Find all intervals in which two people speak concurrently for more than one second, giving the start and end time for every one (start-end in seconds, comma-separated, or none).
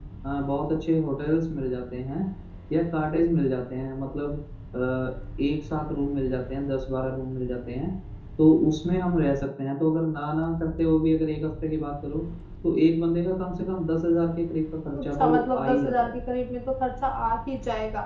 15.0-16.2